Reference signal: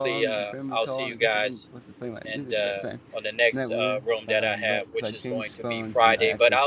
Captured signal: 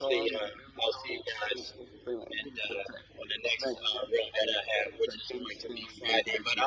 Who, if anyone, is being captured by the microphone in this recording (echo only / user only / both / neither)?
echo only